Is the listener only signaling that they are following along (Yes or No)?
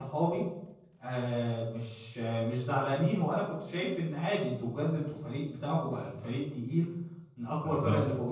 Yes